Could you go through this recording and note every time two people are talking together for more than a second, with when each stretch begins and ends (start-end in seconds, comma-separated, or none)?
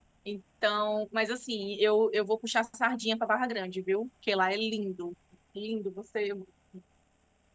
none